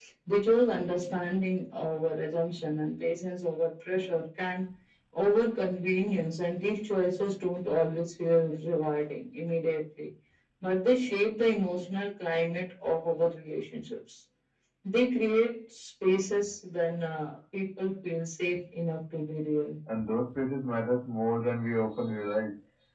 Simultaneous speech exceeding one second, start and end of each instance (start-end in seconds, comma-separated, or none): none